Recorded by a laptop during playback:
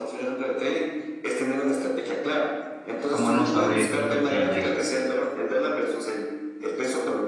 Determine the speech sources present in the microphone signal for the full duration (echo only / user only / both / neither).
both